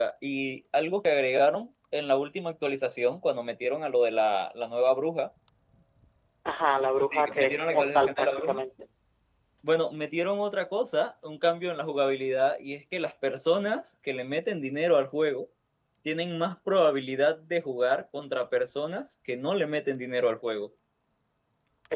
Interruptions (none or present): present